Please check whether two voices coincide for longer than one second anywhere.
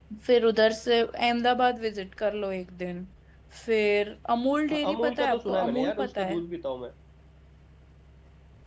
Yes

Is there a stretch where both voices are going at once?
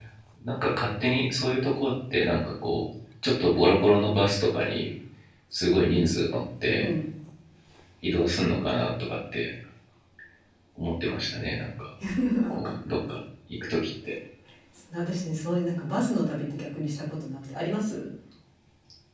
No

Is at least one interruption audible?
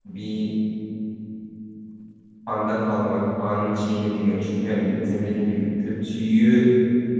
No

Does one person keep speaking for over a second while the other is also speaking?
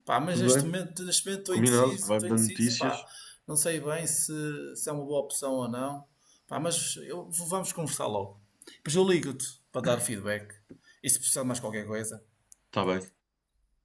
Yes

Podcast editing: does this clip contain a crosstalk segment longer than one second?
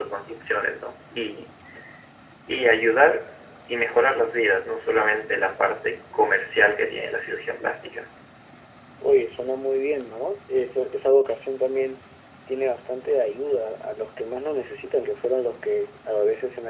No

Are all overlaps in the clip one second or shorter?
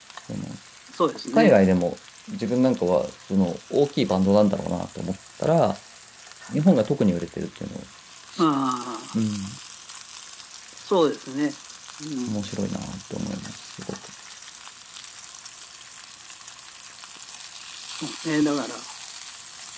Yes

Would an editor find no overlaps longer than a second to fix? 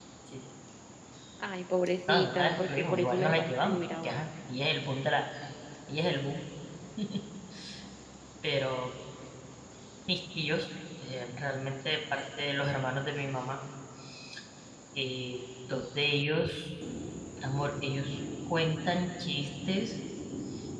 No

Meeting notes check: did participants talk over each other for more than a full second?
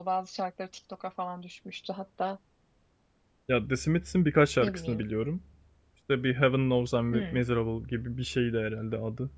No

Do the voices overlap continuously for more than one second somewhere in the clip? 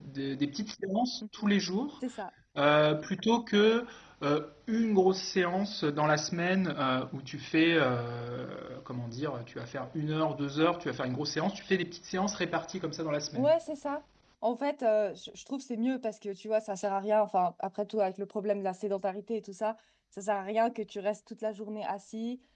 No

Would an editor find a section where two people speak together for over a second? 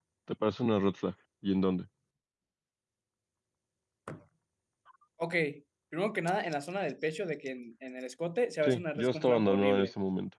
Yes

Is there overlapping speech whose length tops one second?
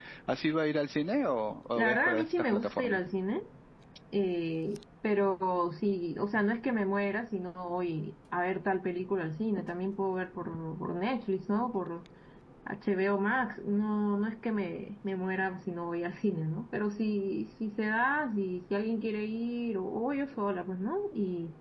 Yes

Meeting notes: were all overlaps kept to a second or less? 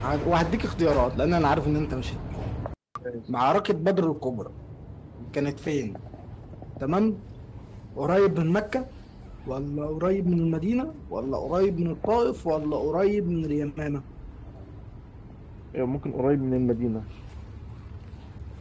Yes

